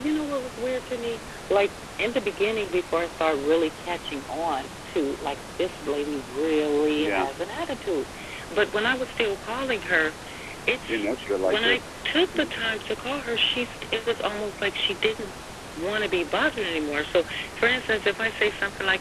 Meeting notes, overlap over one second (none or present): none